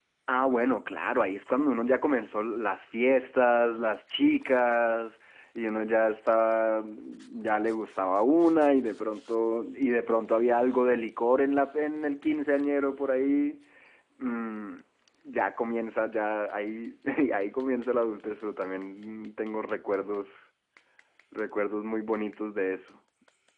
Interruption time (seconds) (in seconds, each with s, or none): none